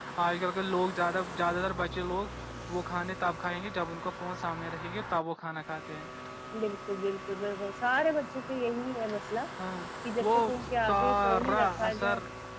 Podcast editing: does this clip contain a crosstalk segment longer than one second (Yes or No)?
Yes